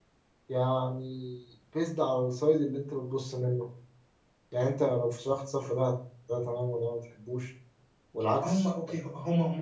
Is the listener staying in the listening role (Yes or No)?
No